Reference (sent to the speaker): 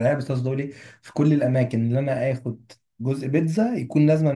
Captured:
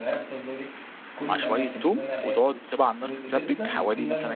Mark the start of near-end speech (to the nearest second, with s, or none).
1 s